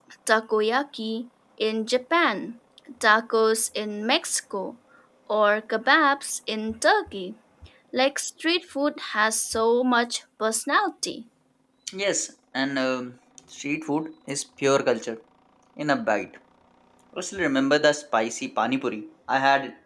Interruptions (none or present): none